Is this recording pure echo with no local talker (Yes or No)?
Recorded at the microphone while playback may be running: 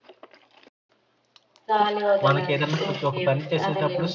No